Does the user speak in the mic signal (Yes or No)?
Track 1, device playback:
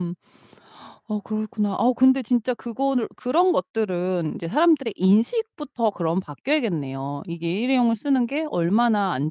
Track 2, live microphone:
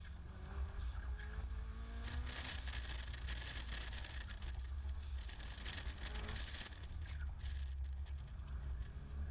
No